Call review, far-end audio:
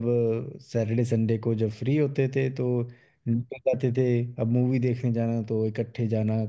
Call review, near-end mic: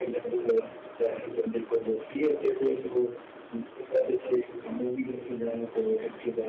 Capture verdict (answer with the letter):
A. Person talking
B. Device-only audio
B